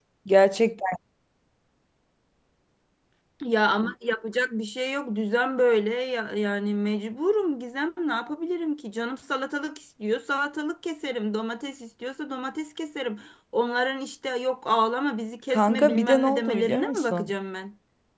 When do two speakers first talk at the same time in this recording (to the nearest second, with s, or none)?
16 s